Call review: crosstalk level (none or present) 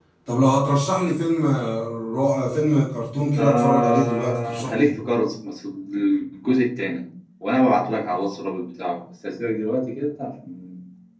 present